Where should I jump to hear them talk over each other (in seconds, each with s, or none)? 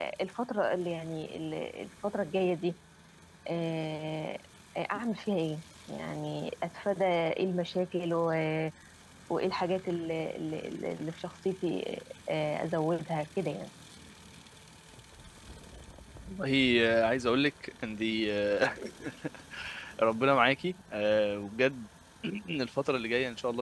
none